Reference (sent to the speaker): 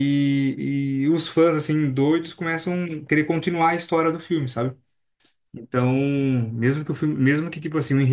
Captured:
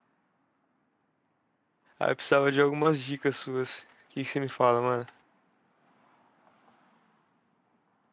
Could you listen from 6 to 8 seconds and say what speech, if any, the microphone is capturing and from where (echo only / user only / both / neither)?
neither